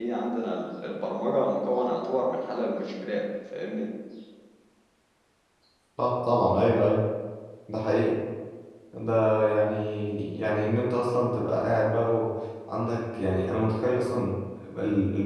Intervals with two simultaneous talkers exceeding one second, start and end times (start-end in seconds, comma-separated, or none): none